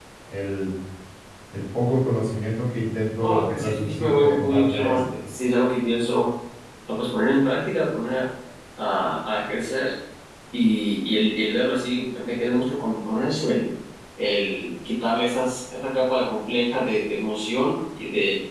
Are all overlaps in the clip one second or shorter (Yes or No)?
No